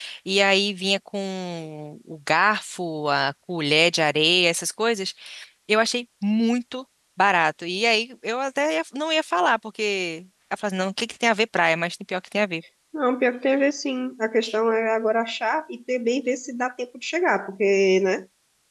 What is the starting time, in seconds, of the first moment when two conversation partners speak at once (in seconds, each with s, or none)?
none